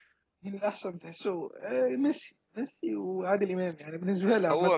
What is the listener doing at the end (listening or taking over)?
taking over